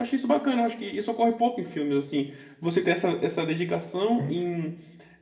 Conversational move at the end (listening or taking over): listening